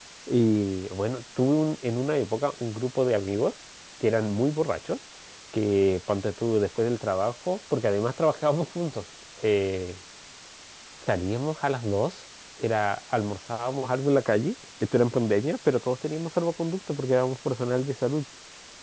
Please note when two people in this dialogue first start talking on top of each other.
none

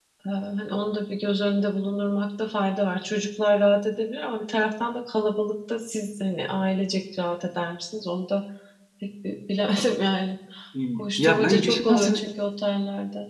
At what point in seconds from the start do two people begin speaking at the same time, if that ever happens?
11.0 s

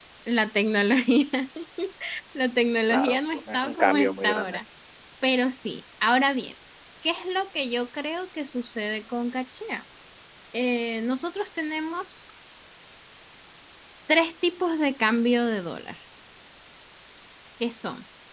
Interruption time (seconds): 2.9 s

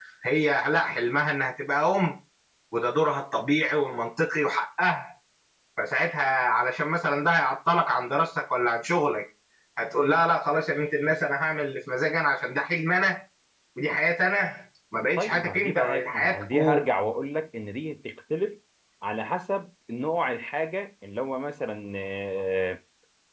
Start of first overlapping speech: 15.2 s

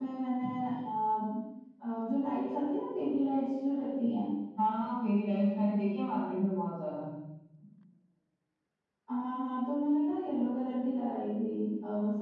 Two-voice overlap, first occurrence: none

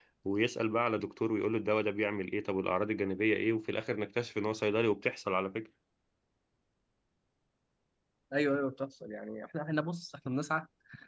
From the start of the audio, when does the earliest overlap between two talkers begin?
none

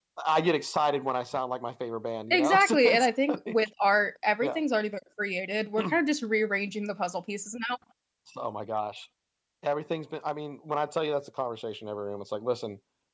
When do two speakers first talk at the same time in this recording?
2.3 s

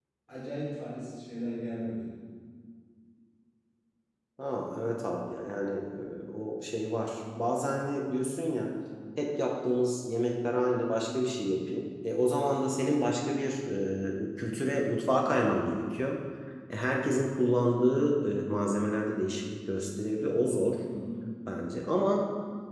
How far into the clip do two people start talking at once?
none

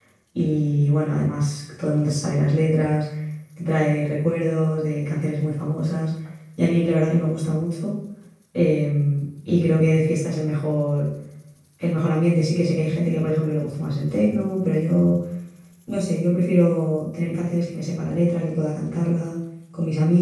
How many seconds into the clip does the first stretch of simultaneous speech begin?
none

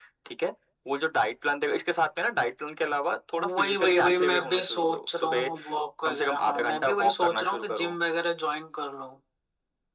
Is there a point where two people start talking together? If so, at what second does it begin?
3.6 s

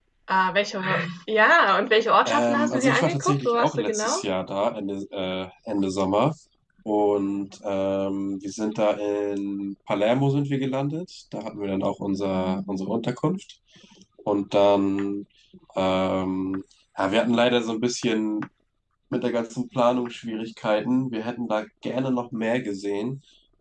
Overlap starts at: 2.2 s

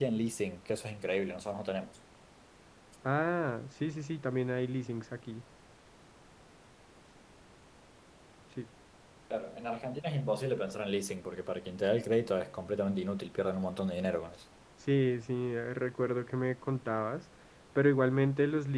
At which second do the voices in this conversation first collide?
none

